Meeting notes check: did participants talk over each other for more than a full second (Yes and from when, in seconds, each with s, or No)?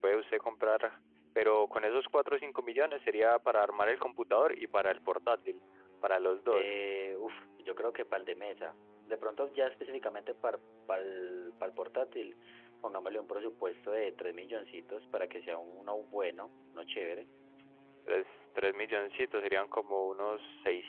No